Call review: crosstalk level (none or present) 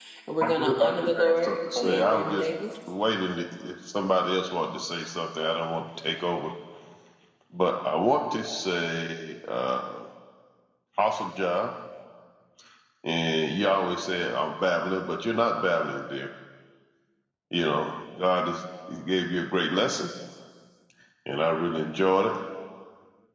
present